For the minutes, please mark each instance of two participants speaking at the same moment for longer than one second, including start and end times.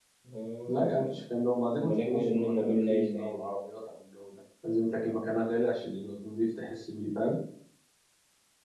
1.8-3.3

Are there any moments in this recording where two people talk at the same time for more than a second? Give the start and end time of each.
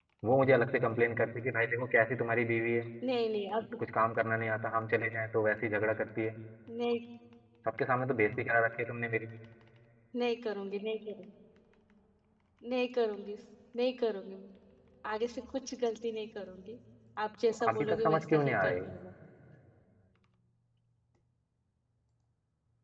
17.7-18.9

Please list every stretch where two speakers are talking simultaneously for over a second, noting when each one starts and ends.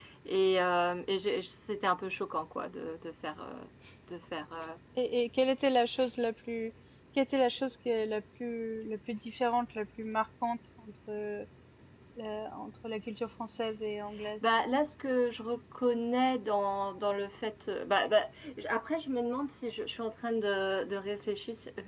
none

